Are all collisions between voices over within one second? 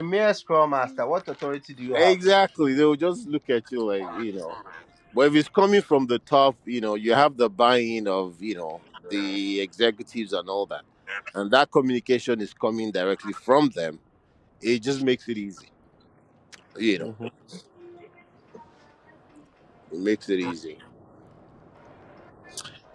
Yes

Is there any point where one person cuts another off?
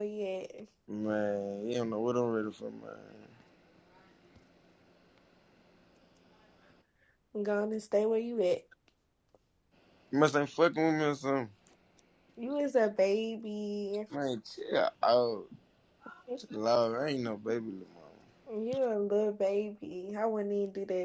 No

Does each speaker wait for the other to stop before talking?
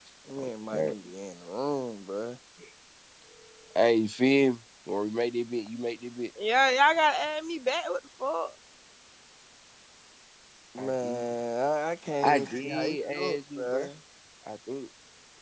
No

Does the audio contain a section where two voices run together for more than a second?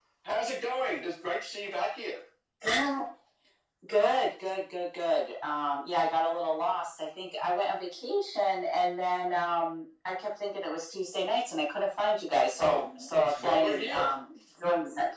Yes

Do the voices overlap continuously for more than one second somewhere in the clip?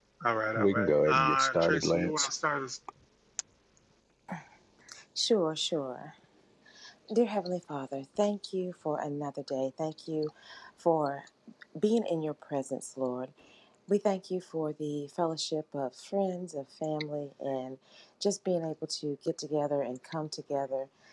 Yes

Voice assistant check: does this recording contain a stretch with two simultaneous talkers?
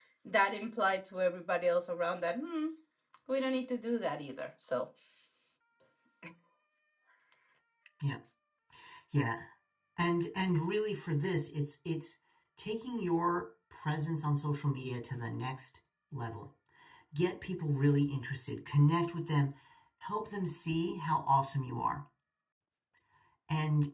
No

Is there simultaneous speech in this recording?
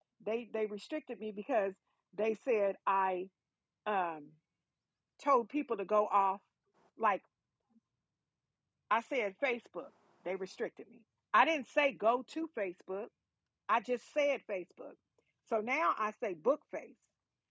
No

